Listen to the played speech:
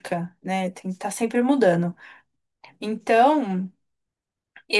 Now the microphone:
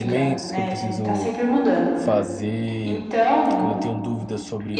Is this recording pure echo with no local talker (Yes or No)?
No